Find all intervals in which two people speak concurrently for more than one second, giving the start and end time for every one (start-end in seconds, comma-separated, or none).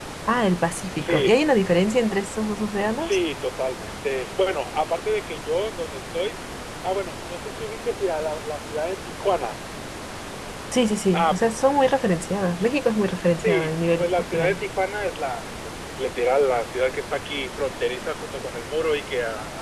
13.4-14.6